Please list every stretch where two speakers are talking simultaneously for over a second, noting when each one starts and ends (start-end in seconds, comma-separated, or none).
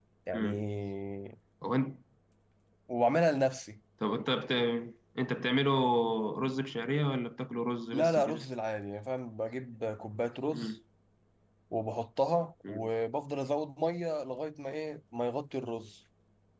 none